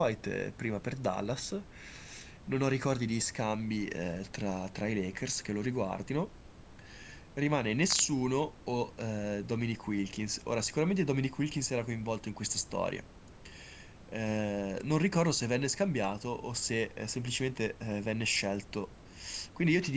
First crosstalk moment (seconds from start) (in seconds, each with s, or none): none